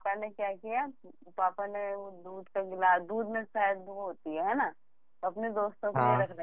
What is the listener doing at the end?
listening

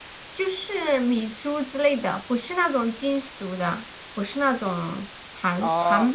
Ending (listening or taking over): taking over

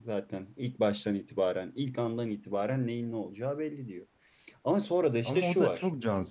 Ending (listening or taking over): taking over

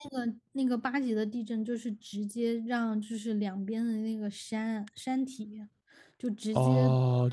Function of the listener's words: taking over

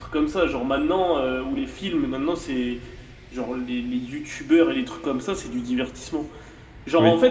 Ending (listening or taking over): listening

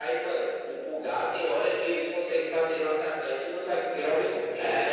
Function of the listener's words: taking over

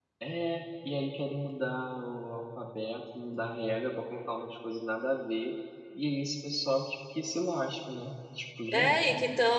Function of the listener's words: taking over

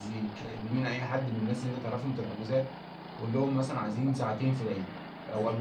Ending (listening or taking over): listening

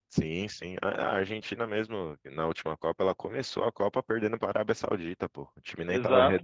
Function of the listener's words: taking over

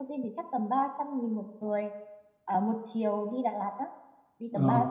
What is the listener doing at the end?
taking over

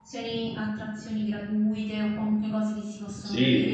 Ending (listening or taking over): taking over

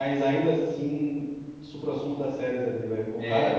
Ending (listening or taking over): listening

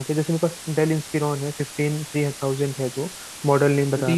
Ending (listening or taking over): taking over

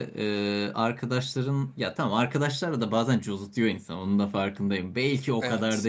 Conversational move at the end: listening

